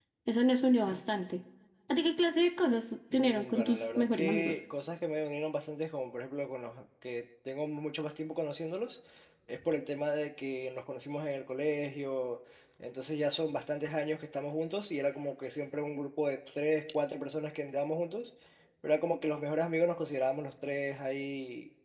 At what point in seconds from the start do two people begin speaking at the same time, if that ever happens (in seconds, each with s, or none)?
3.1 s